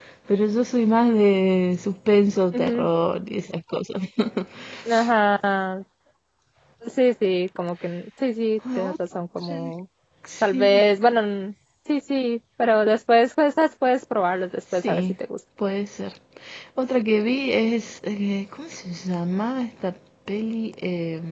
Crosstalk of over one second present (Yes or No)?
No